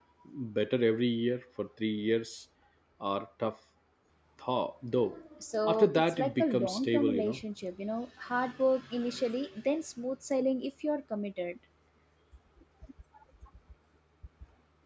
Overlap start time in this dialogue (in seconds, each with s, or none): 5.7 s